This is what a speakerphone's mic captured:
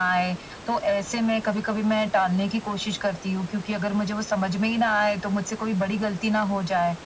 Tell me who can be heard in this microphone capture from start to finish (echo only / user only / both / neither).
echo only